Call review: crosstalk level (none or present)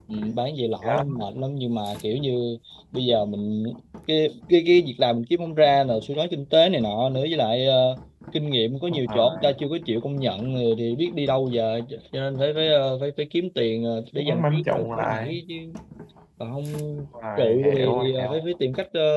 present